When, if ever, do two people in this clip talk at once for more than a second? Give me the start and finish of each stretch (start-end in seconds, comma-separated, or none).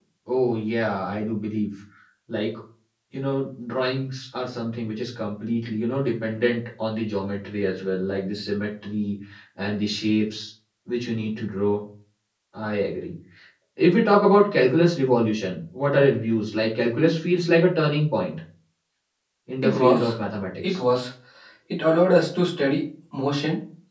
none